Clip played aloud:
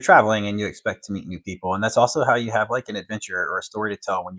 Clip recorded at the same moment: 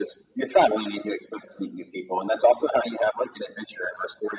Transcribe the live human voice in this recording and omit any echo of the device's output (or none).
none